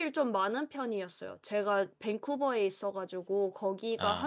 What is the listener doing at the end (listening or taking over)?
listening